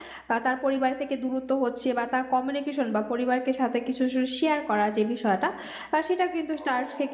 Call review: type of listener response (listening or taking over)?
listening